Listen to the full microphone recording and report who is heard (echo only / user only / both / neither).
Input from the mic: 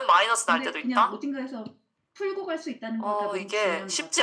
both